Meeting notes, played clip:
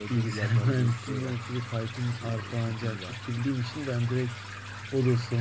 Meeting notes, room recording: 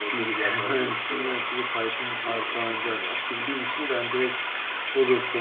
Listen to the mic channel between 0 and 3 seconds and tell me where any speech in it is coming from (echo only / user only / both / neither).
echo only